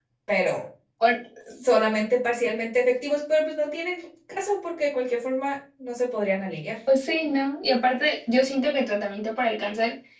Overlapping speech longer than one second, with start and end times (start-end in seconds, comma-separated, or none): none